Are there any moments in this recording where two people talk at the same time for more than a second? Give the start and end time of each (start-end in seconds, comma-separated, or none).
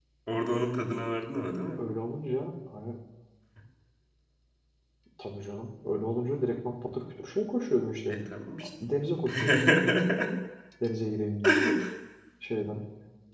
none